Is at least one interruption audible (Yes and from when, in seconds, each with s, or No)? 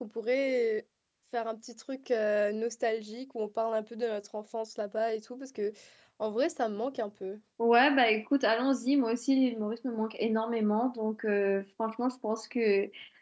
No